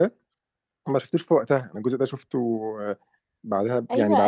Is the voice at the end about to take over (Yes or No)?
Yes